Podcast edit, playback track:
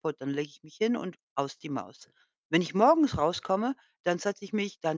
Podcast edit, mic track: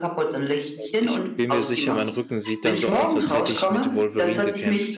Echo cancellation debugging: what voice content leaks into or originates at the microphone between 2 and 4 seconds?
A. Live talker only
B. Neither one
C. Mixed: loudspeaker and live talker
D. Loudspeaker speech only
C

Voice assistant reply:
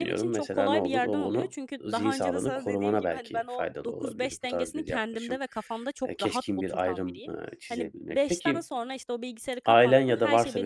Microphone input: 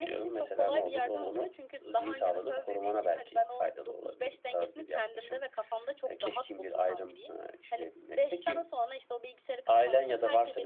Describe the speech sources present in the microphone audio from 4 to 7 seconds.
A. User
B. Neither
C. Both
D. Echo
D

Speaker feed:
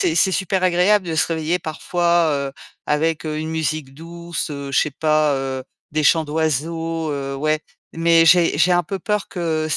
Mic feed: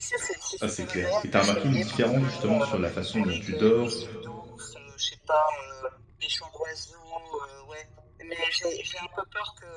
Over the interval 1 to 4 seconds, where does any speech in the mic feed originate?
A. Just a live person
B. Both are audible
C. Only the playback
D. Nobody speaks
B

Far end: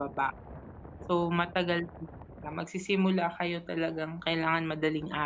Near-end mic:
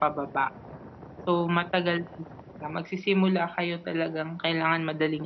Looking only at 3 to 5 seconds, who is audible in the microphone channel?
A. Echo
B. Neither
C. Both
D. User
A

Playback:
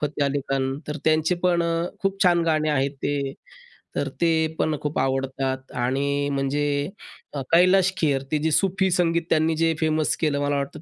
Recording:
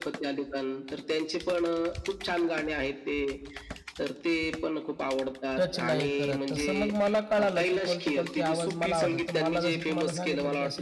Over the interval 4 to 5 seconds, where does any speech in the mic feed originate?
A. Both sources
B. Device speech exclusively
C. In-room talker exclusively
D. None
B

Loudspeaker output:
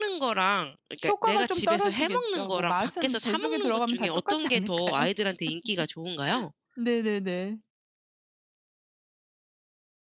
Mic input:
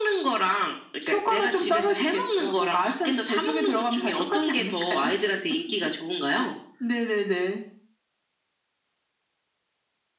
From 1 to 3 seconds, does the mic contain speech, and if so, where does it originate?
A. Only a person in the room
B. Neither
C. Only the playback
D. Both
C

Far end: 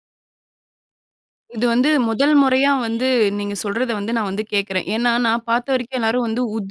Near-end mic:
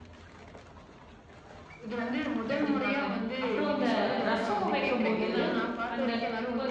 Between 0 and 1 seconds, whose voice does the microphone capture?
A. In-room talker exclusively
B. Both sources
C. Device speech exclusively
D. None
D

